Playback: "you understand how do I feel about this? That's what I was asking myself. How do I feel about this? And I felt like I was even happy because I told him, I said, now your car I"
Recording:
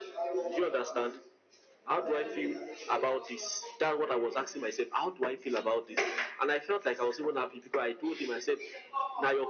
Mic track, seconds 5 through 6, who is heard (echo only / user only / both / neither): echo only